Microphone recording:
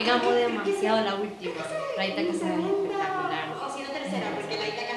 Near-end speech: present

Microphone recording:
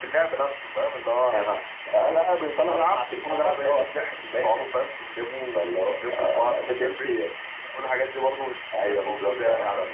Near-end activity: none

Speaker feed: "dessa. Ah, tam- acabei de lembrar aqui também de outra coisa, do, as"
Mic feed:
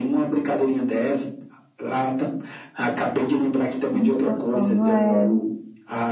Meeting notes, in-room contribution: present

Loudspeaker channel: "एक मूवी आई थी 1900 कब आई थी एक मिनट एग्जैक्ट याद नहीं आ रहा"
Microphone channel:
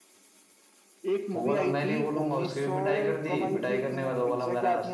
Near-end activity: present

